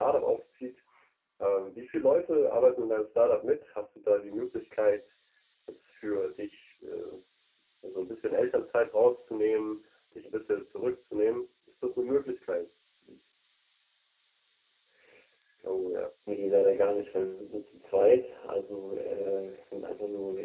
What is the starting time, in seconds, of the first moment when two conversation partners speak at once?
none

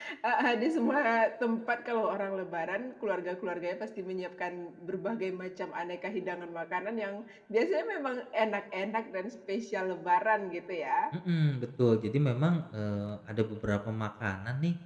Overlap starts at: none

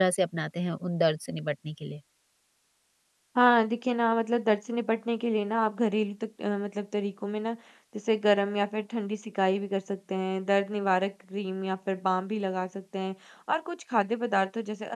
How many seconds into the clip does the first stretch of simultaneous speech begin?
none

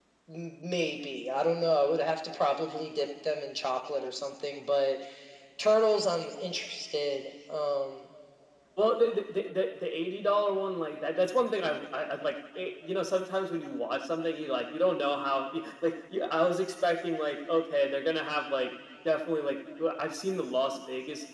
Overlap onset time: none

